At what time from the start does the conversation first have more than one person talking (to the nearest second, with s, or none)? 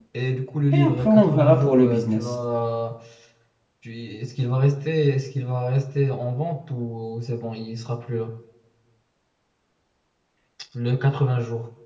1 s